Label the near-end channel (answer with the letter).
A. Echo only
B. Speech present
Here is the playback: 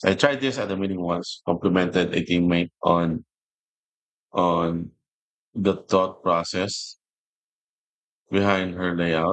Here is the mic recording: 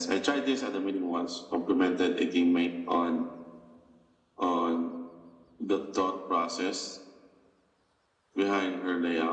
A